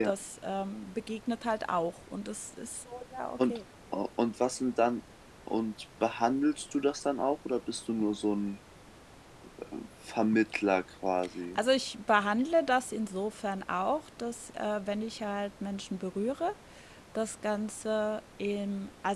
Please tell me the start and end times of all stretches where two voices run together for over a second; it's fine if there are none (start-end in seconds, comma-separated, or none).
none